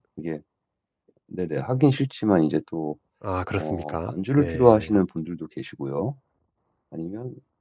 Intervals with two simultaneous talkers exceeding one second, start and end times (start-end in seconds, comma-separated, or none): 3.6-5.0